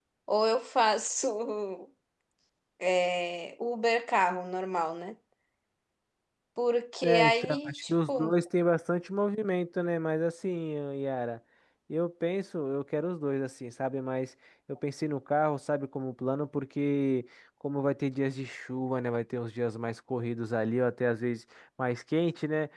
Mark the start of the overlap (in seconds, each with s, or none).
7.0 s